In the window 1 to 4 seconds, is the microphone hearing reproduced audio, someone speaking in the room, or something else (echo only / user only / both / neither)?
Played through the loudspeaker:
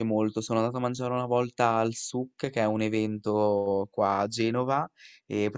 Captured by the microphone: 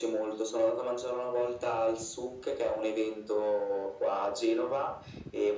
echo only